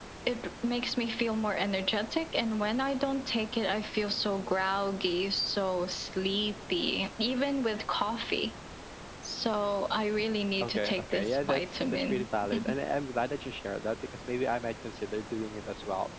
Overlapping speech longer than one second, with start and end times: 10.6-12.3

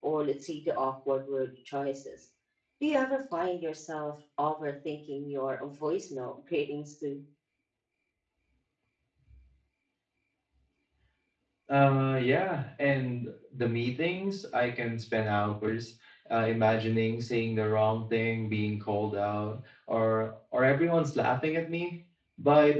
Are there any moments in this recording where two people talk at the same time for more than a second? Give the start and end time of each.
none

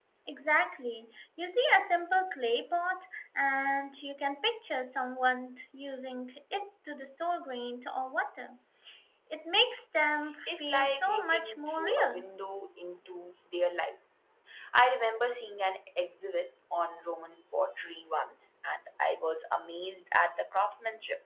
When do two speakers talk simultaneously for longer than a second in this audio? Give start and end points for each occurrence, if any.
10.5-12.3

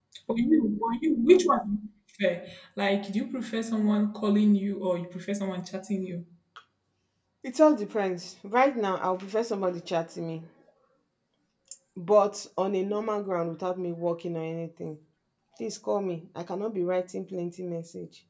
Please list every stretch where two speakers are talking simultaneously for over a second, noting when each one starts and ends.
none

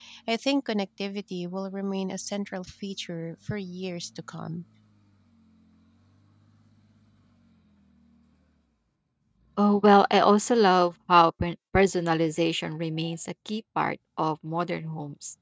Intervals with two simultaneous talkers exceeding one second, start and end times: none

